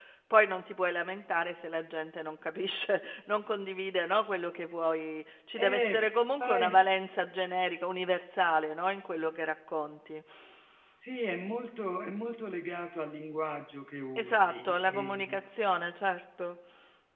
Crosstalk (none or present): present